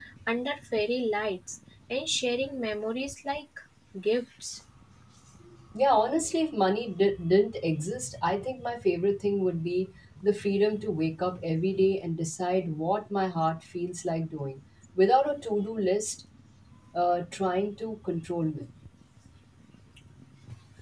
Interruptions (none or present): none